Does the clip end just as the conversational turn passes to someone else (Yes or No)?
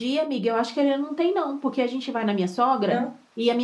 No